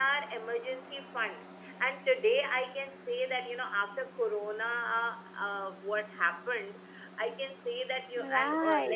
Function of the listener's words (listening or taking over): listening